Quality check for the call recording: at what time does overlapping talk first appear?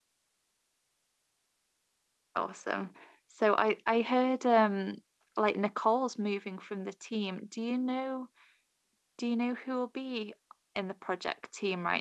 none

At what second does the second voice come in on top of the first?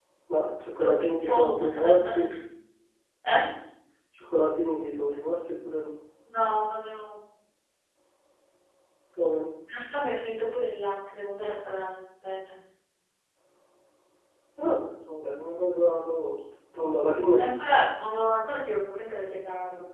0.8 s

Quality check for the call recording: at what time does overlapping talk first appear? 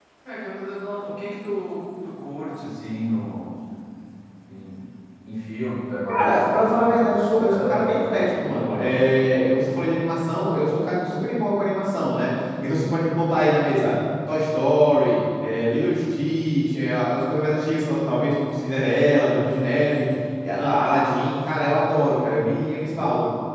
6.1 s

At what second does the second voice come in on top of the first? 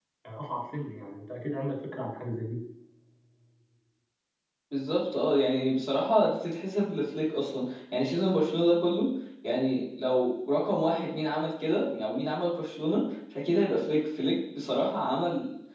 none

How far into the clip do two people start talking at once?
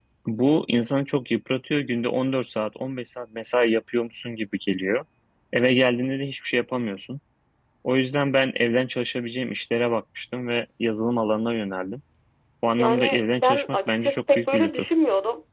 12.8 s

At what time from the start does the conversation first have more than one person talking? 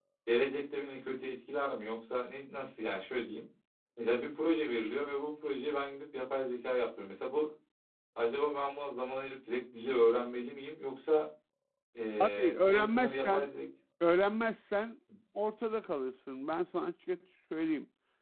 12.2 s

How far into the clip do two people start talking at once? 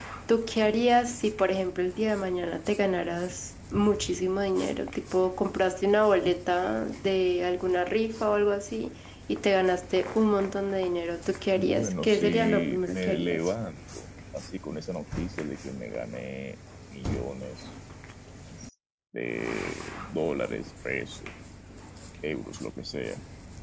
11.6 s

